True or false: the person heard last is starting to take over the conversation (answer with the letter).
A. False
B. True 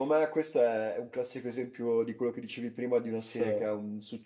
A